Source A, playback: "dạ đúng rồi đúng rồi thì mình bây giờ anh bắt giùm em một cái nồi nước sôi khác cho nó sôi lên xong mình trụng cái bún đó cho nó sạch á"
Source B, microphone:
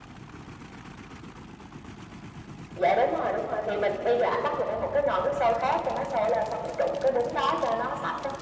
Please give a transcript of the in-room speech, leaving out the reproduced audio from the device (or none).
none